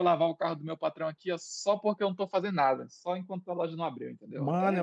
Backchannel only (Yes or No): No